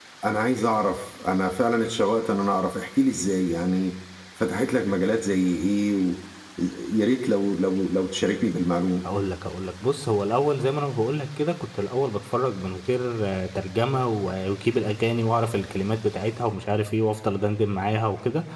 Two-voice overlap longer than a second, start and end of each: none

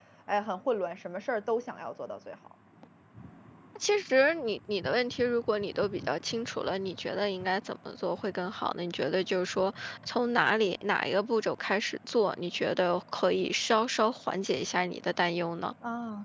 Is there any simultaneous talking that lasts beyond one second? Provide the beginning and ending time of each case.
none

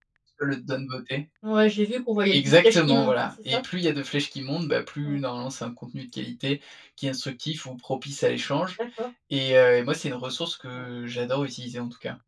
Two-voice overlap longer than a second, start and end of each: 2.3-3.6

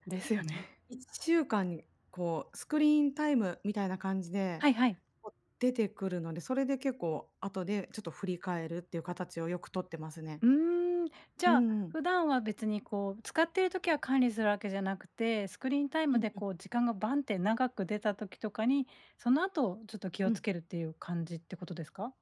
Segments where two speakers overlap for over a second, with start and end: none

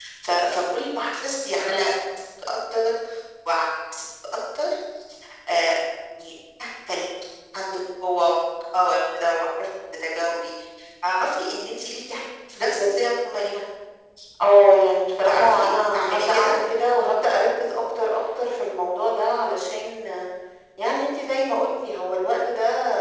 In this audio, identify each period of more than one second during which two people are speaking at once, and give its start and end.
15.2-16.6

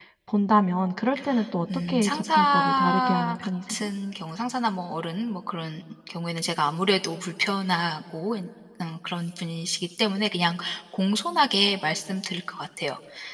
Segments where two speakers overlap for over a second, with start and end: 1.9-3.8

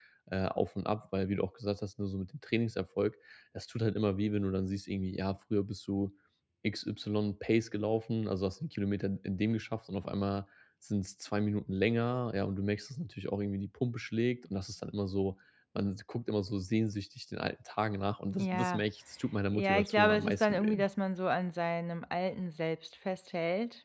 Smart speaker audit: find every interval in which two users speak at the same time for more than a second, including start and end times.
19.5-20.9

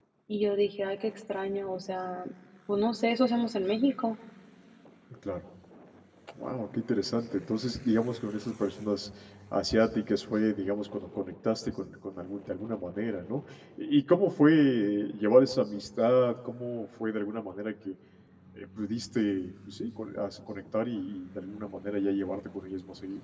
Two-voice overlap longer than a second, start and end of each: none

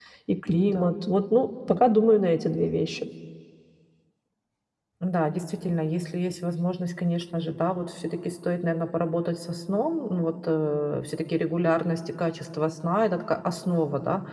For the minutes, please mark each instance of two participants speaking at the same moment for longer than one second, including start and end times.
none

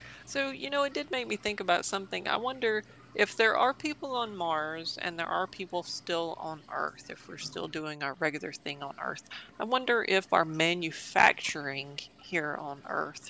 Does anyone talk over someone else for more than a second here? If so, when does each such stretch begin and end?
none

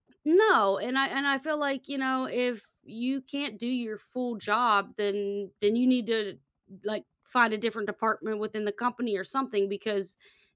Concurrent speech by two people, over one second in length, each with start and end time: none

